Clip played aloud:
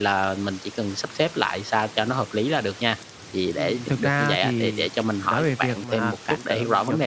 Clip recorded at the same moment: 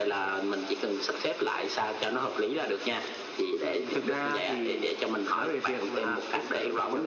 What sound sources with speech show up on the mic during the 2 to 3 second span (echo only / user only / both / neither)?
echo only